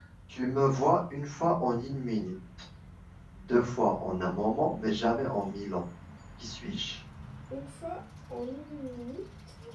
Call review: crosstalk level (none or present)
none